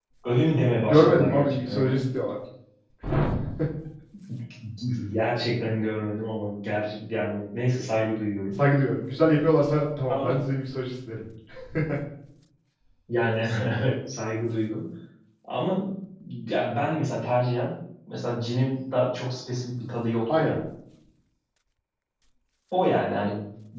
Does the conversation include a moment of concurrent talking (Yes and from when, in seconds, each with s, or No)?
Yes, from 0.8 s